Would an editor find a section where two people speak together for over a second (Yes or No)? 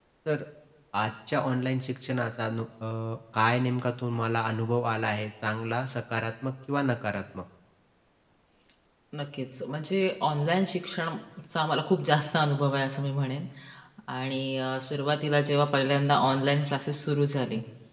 No